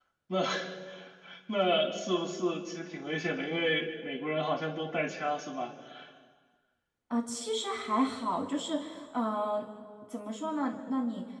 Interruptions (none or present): none